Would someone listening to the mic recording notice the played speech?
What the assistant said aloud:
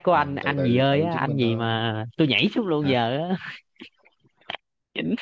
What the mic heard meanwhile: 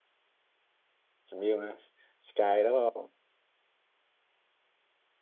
No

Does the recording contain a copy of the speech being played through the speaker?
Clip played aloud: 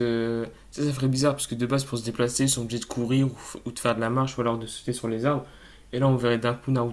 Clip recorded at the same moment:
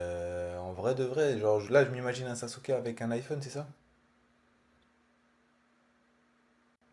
No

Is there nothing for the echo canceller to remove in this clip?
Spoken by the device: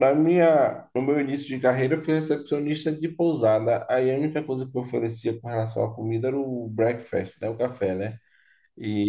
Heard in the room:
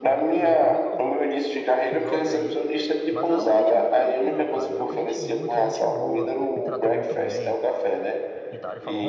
No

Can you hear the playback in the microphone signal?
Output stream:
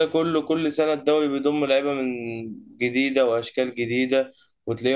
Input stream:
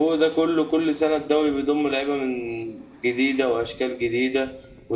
Yes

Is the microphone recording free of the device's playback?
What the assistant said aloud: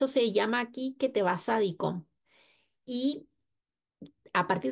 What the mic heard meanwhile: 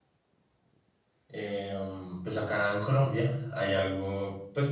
Yes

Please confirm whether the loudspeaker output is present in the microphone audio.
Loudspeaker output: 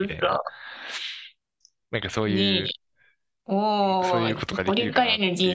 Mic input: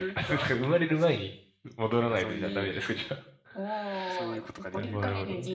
Yes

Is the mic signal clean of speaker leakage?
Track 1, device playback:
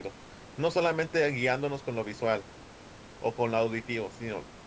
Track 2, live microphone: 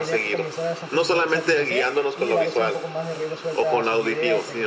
No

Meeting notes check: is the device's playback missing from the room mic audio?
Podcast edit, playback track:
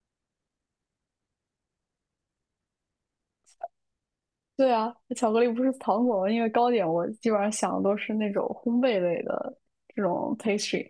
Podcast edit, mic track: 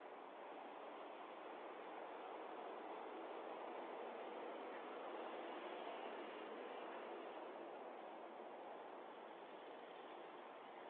Yes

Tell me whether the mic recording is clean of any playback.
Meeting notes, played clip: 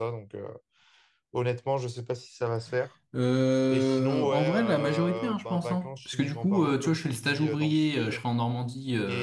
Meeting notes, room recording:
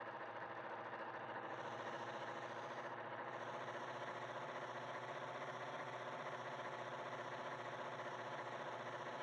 Yes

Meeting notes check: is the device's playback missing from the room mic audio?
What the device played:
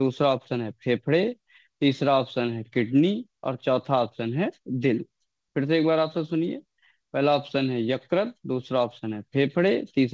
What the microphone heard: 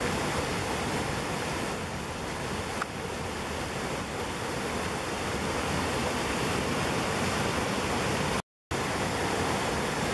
Yes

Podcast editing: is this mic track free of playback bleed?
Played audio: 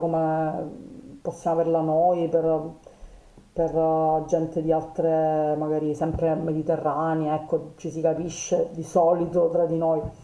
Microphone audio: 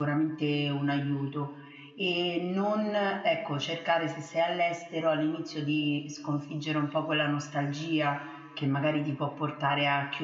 Yes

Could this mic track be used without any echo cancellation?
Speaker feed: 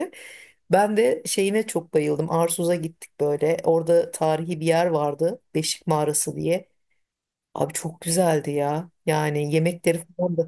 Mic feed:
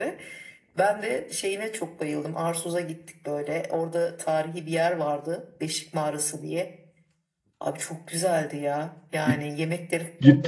No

